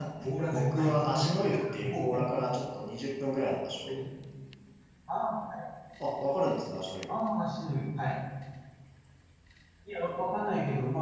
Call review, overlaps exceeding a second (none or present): present